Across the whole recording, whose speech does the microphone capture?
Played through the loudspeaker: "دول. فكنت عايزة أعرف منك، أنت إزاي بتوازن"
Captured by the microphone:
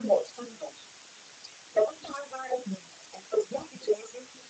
echo only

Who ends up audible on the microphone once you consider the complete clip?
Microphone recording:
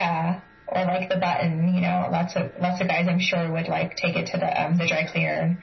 echo only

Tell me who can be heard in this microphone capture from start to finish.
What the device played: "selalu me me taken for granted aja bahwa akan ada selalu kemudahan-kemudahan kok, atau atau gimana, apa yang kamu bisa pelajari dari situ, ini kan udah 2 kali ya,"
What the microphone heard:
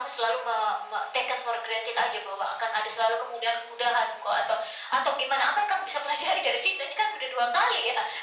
echo only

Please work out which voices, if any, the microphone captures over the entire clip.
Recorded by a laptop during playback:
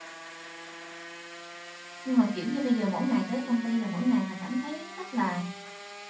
user only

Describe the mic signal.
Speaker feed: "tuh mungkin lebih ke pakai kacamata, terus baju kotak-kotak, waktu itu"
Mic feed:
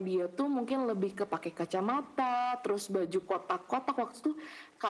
echo only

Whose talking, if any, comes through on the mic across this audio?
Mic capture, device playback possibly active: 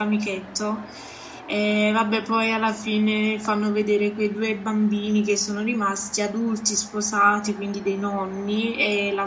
user only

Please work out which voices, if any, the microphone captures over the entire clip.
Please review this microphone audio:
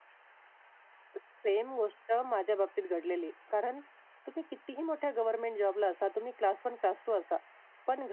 echo only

